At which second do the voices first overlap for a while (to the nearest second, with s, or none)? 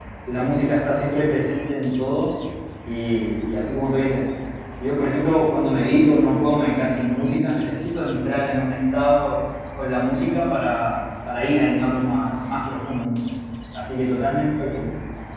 none